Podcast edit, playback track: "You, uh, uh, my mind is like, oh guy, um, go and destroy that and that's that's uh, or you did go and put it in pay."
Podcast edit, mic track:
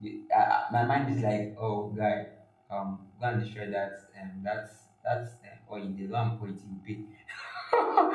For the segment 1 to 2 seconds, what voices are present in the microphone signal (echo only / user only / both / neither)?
echo only